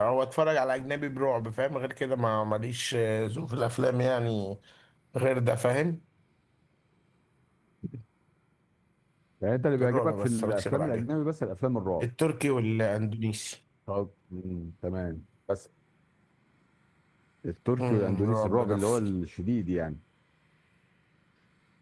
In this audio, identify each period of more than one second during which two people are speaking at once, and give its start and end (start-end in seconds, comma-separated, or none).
9.8-11.0, 17.8-19.1